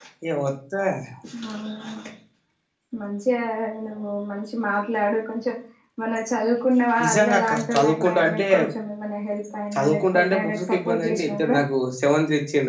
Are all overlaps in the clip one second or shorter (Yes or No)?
No